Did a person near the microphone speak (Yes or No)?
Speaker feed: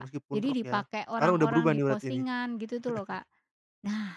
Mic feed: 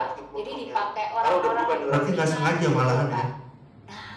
Yes